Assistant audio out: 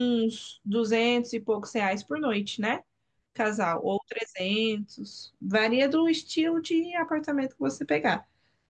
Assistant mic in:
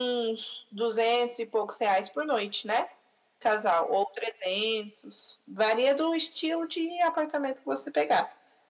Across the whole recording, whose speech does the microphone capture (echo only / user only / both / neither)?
echo only